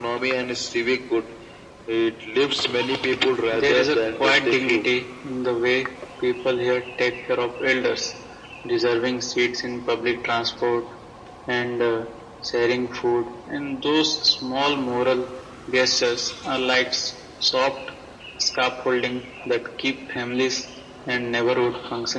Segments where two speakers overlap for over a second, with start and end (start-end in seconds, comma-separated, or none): 3.5-4.8